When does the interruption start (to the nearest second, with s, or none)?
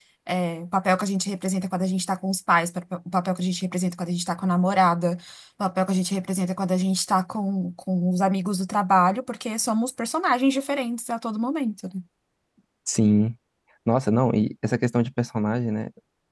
none